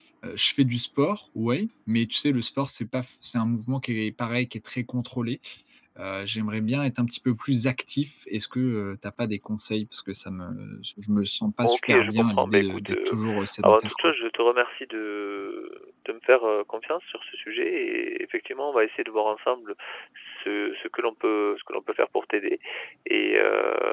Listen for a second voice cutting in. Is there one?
Yes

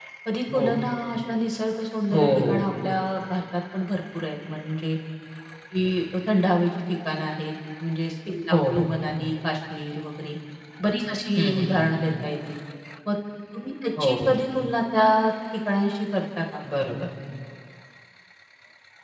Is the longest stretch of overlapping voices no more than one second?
Yes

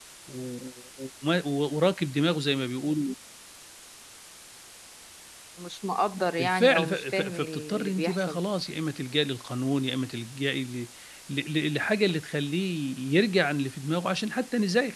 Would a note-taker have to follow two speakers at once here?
Yes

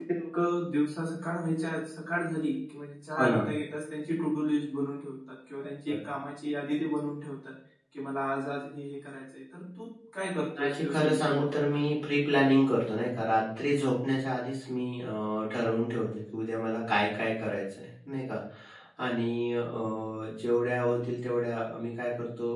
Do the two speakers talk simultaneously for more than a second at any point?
Yes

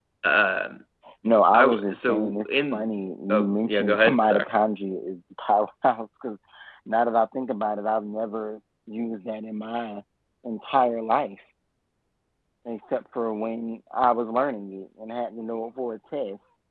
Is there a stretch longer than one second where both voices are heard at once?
Yes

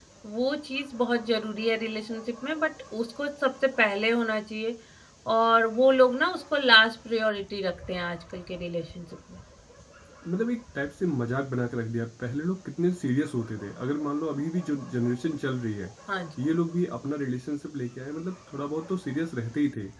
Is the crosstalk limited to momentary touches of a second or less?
Yes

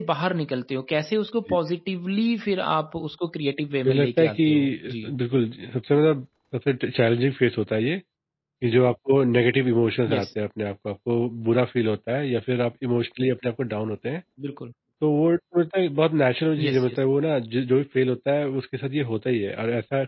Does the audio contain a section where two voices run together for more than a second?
Yes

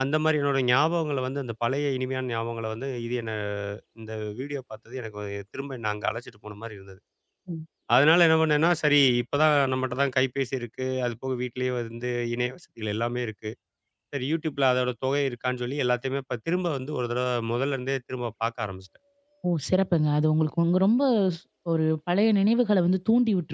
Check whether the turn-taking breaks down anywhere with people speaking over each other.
No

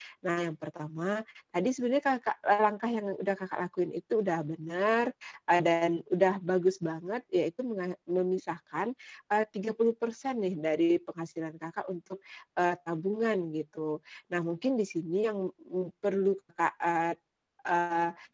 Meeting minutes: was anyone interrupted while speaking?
No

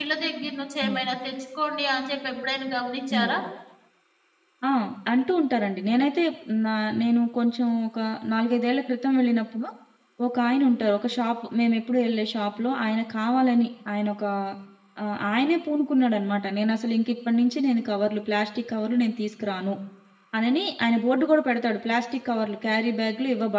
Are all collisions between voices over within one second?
Yes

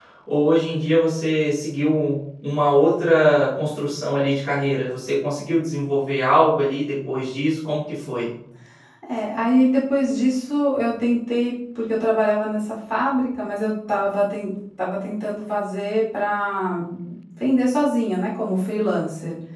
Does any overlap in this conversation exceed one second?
No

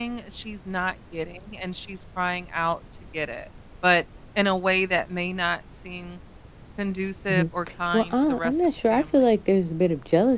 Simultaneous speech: Yes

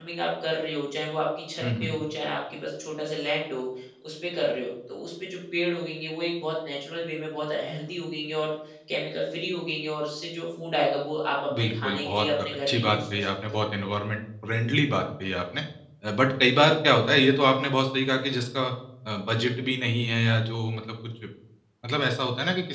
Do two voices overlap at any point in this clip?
Yes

